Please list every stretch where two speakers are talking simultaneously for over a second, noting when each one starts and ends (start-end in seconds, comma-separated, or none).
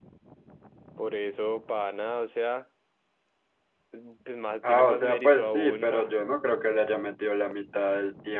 4.6-6.1